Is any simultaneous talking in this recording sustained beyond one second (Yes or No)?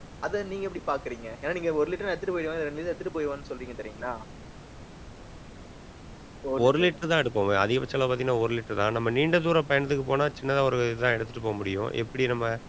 No